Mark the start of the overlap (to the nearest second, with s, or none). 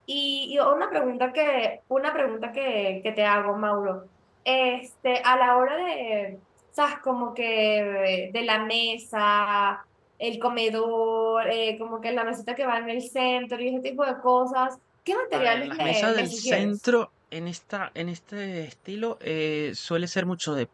15 s